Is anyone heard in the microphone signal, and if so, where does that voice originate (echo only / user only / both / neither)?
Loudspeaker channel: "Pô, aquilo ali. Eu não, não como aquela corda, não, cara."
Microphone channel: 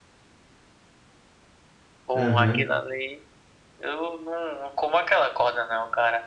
both